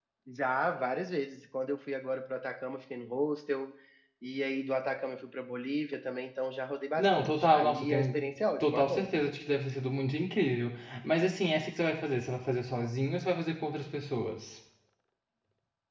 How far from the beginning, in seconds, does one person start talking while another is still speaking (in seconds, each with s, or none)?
7.0 s